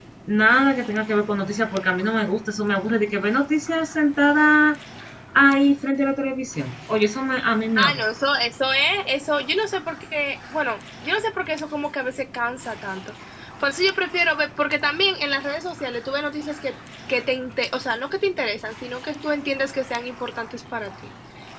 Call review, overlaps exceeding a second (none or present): none